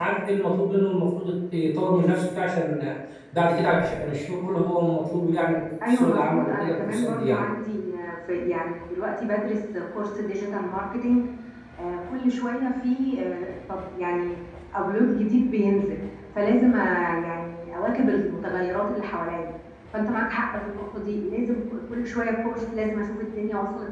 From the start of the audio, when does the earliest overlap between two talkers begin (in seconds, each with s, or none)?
5.8 s